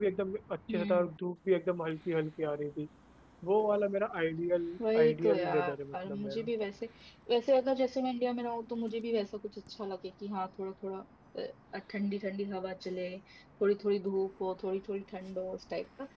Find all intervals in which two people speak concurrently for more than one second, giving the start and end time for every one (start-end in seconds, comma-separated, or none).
5.0-6.5